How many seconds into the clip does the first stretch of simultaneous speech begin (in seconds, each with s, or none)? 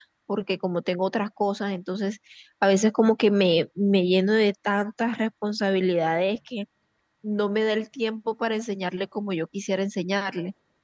none